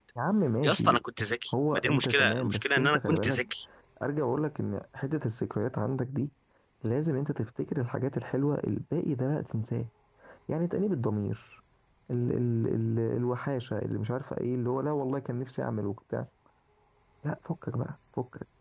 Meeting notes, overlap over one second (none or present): present